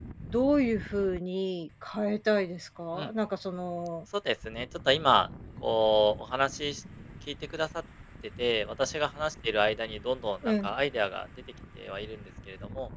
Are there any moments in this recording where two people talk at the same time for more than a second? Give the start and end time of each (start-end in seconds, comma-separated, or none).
none